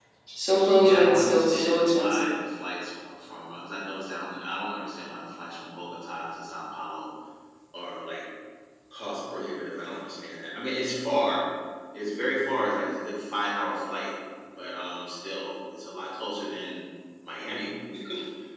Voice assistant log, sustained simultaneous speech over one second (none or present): present